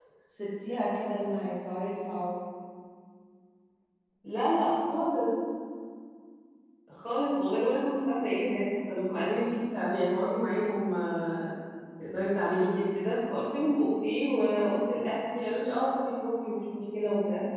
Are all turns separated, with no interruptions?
Yes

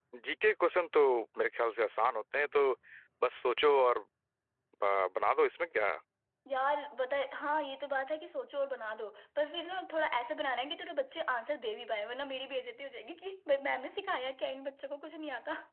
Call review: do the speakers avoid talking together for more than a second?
Yes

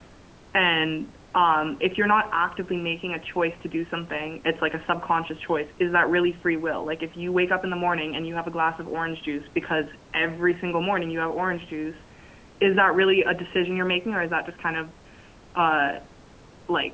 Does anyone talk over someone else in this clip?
No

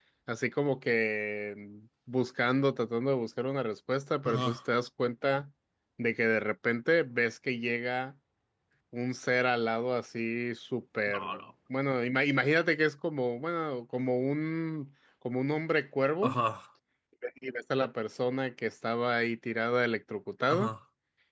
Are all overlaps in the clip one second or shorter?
Yes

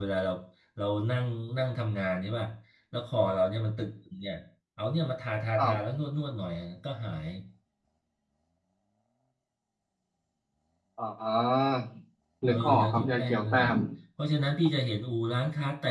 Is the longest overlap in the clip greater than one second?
Yes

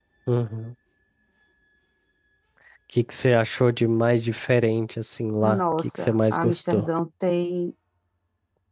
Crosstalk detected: Yes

